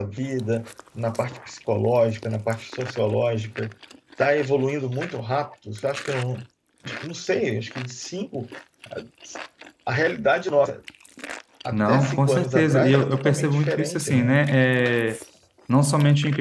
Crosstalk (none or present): present